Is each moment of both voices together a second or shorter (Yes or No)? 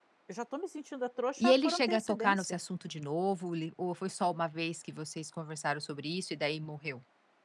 No